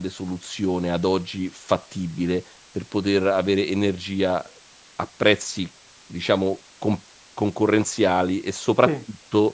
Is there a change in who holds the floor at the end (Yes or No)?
No